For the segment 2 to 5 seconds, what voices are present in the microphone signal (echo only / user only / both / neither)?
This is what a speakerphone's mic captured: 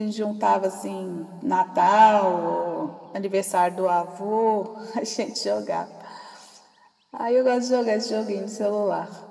echo only